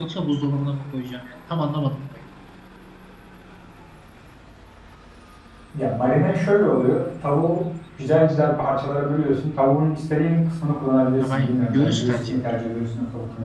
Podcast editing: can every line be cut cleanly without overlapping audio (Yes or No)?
No